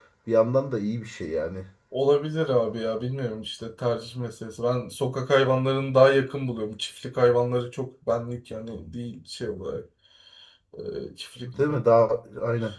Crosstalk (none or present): none